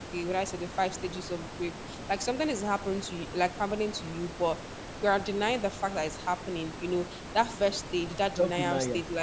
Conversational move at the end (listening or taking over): listening